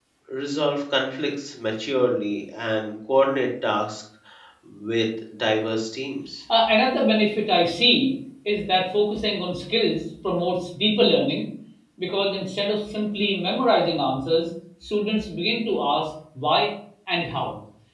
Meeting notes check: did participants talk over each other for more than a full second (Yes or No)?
No